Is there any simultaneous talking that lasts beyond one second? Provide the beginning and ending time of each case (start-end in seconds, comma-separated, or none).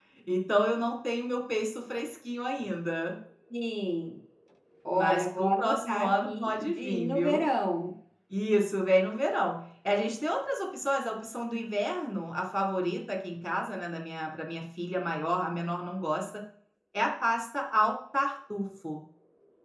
4.9-7.5